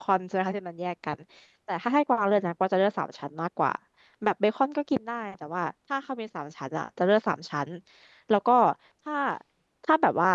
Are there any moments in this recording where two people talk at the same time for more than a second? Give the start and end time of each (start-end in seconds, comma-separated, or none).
none